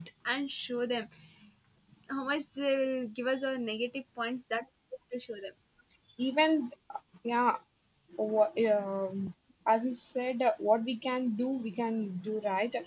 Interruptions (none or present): none